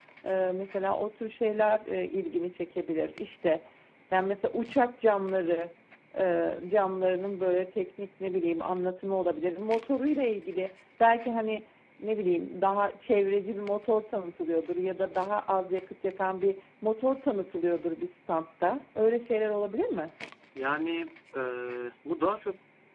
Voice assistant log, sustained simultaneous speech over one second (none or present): none